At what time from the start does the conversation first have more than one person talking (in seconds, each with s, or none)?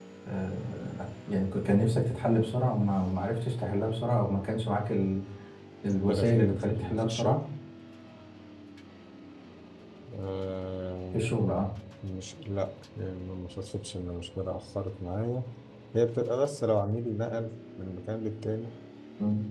6.1 s